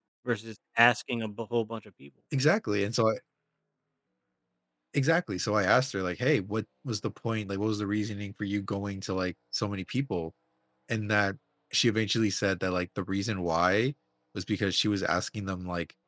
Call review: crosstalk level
none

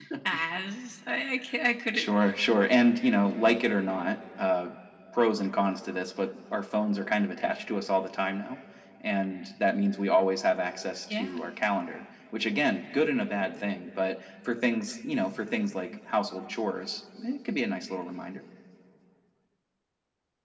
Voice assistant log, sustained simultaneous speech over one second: none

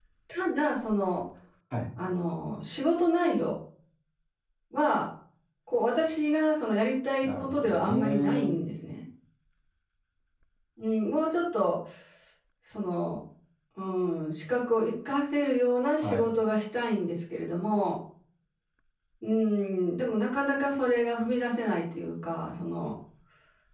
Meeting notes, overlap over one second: present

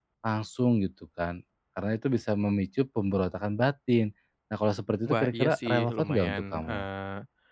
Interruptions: present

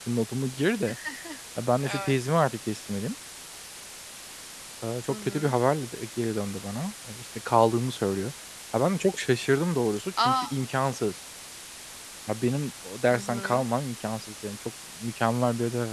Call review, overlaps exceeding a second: none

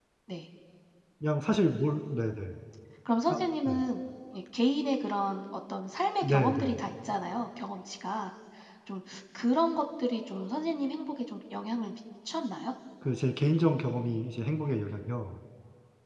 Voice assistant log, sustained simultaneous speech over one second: none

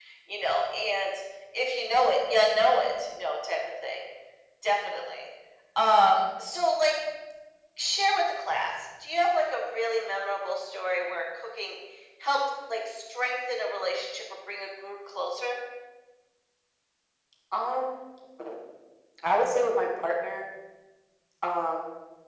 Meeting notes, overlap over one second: none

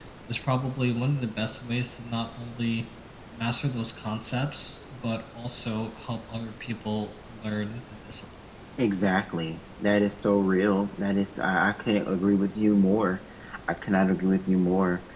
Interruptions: none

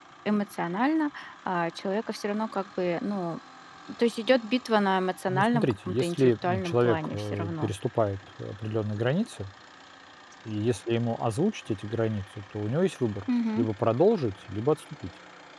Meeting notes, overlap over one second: present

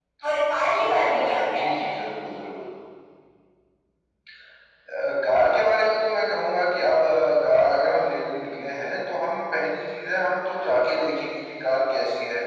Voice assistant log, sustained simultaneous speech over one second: present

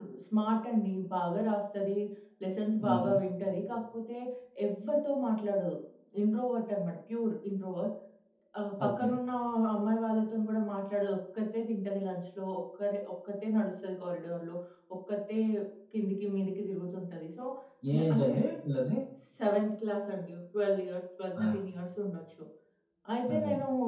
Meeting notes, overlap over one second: none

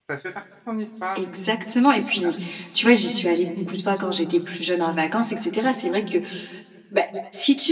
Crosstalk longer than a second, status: none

